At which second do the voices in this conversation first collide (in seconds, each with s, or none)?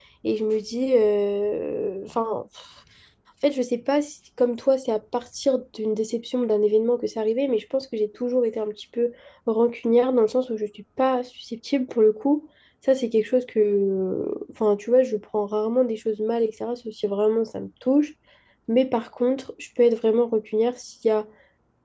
none